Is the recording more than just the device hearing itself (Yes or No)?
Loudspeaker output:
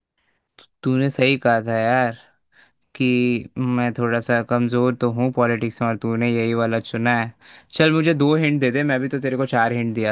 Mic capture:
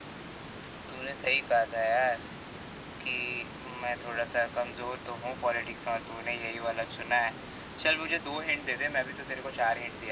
No